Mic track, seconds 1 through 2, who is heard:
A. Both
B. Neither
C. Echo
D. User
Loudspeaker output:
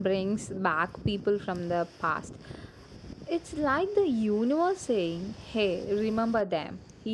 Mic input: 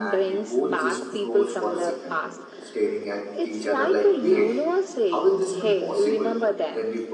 A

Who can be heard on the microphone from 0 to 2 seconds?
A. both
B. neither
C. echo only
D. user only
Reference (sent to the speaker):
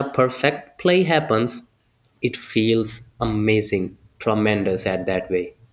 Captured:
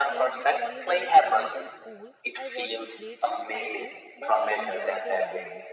A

